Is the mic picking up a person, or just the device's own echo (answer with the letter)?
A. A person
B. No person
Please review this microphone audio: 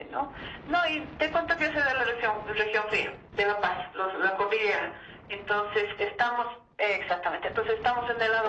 B